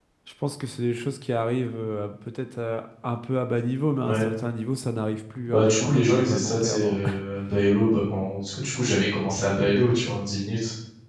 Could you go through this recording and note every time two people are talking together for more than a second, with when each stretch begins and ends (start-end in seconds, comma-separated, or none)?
5.5-7.1